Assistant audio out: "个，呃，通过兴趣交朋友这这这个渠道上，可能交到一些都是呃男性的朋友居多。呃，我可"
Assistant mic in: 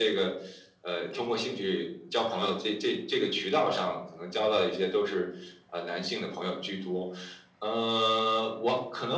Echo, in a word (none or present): present